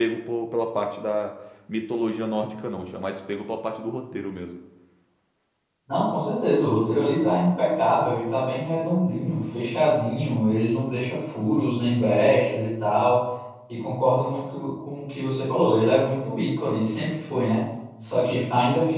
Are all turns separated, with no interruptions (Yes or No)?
Yes